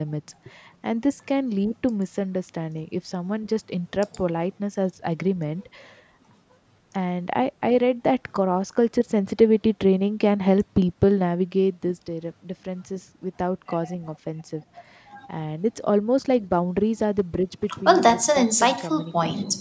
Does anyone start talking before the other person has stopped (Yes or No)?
Yes